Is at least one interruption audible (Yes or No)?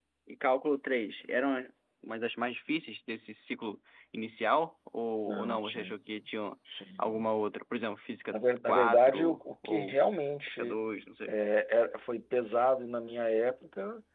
Yes